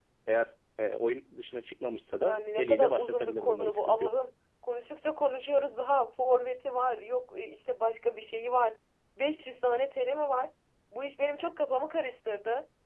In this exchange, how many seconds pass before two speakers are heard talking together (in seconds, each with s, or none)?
2.2 s